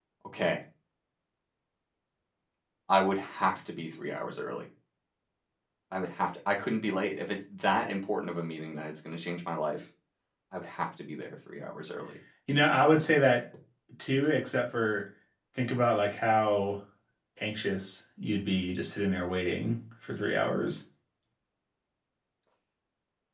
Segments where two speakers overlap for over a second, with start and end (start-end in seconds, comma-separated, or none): none